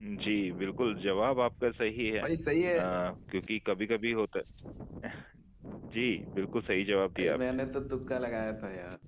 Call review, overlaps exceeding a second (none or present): none